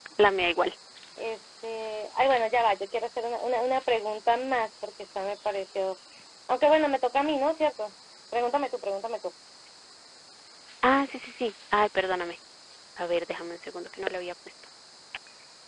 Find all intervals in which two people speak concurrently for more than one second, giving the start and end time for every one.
none

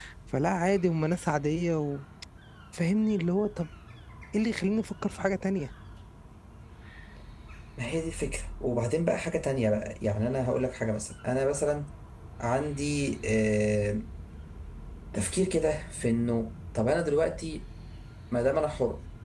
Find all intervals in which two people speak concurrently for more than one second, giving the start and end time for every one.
none

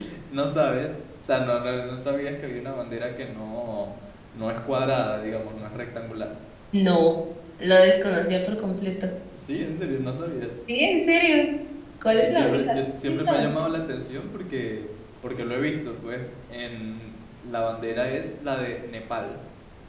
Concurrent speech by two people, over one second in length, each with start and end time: 12.1-13.5

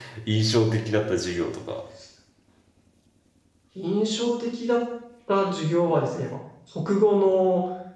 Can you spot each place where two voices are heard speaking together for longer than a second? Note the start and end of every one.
none

